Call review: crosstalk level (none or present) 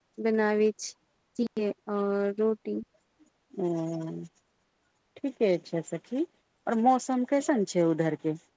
none